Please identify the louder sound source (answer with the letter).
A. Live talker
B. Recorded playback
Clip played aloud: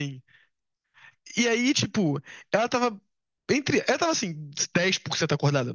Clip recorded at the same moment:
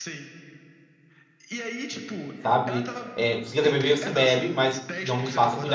A